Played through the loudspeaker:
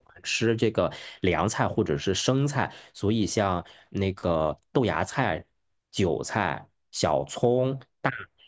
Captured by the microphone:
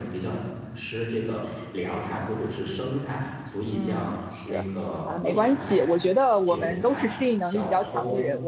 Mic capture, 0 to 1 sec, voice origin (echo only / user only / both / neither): echo only